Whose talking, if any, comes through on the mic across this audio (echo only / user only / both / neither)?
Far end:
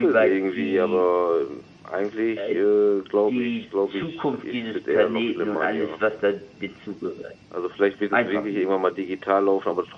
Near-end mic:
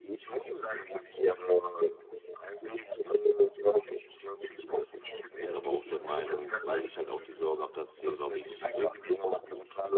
both